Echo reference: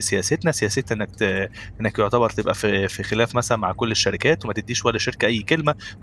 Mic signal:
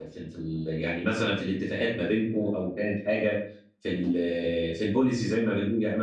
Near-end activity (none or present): present